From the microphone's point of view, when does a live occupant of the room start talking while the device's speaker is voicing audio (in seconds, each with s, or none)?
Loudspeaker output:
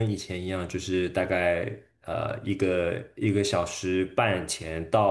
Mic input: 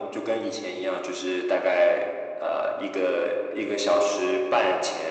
none